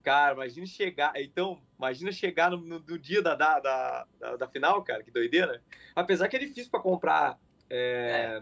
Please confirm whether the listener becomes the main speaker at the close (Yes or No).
No